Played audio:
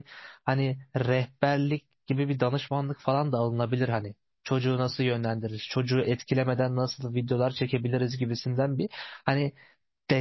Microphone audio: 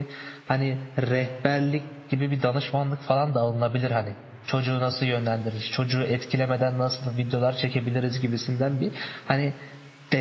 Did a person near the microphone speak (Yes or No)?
No